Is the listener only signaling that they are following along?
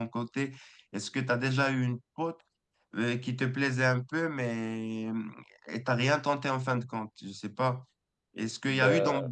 Yes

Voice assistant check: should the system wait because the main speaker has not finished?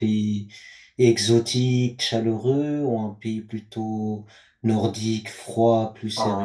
No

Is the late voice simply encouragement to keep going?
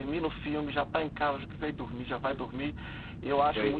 Yes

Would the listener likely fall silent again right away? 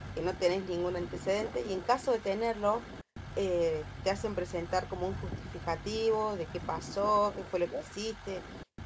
Yes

